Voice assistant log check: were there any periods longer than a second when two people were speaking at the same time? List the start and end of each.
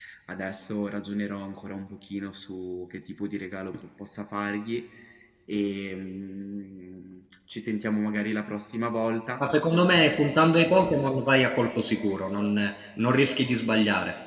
none

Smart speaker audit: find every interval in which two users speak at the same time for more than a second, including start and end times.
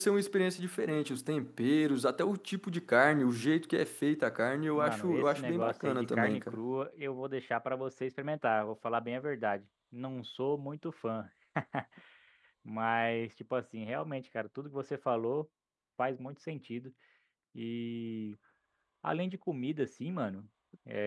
4.7-6.6

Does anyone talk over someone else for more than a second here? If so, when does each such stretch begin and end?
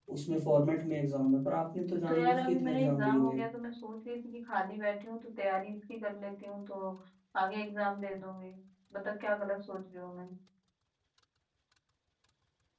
2.1-3.4

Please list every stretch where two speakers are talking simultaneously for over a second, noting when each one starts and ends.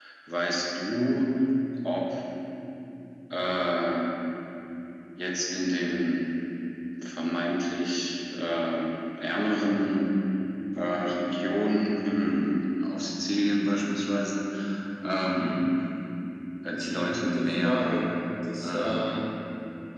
16.7-18.1

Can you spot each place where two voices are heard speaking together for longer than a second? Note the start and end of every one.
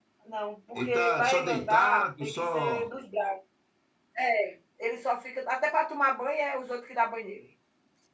0.8-2.9

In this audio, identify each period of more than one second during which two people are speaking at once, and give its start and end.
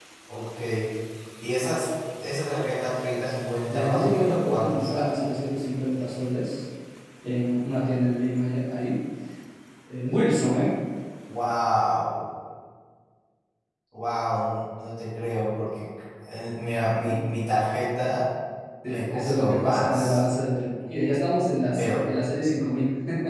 3.7-5.1, 18.8-20.2

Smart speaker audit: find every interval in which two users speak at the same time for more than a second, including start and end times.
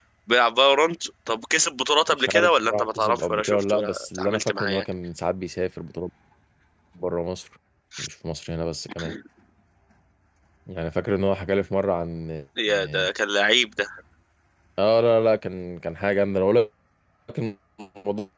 2.1-4.8

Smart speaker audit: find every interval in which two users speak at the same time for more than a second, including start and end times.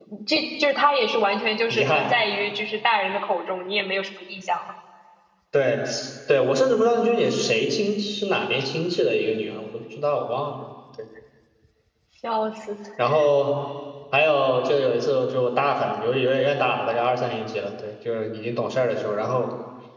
none

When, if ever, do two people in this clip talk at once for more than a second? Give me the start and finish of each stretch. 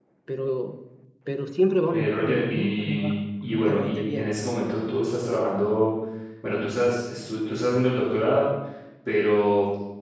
1.9-4.3

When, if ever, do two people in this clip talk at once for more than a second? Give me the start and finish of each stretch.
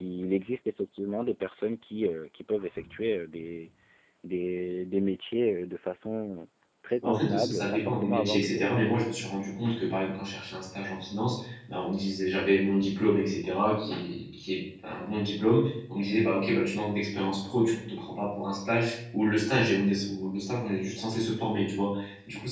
7.0-9.0

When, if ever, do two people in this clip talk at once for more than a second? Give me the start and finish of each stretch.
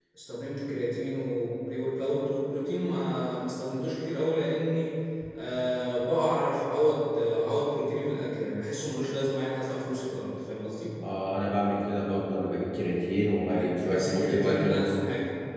13.6-15.0

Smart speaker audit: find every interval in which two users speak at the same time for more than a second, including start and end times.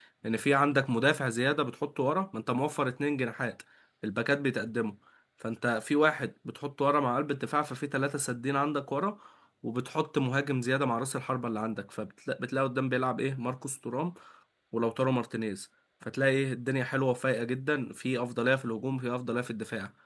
none

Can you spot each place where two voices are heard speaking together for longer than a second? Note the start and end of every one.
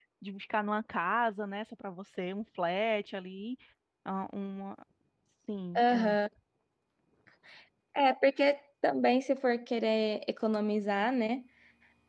none

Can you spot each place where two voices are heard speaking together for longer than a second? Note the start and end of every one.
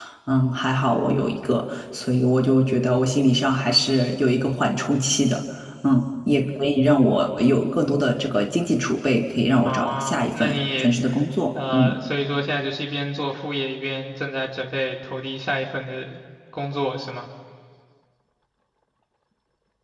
9.6-10.9

